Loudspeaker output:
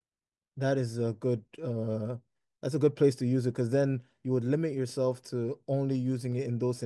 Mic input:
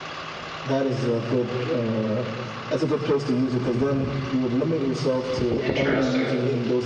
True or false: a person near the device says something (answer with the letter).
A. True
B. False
A